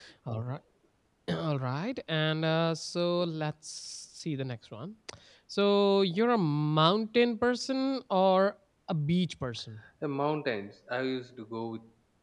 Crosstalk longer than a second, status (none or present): none